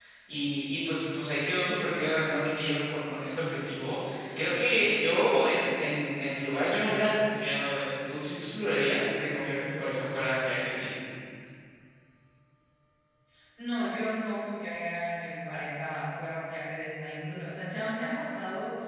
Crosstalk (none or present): none